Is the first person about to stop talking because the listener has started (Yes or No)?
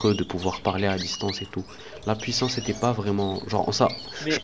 No